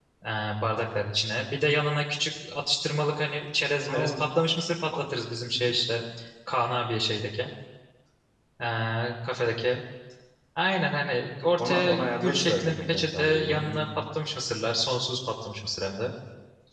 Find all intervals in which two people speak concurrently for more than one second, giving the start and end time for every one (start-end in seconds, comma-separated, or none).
11.6-13.9